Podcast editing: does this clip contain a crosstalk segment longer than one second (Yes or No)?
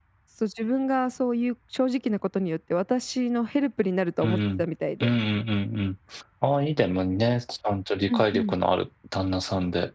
No